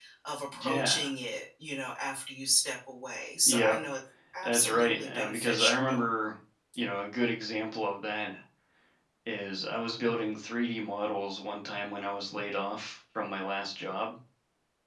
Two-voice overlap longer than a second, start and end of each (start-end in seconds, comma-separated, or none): 4.4-5.7